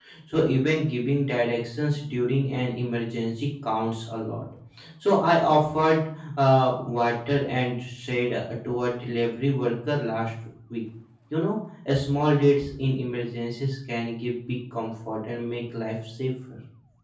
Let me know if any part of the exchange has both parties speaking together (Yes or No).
No